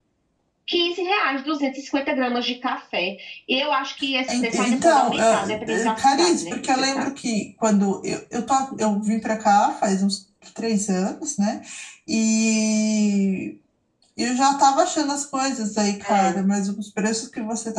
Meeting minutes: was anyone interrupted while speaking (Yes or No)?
Yes